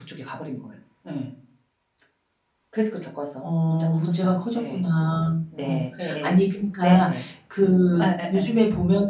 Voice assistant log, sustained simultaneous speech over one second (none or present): present